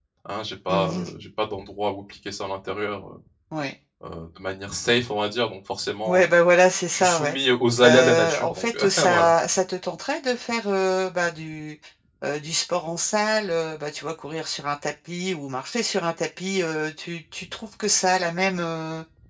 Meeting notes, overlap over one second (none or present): present